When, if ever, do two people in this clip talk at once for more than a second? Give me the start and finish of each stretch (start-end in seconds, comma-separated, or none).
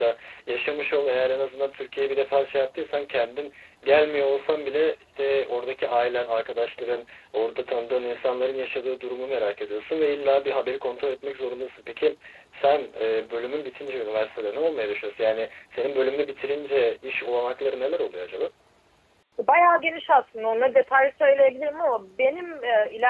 none